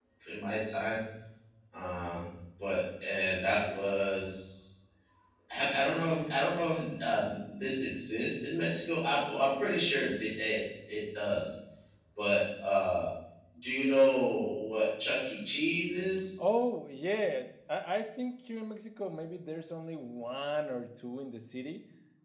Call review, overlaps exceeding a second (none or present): none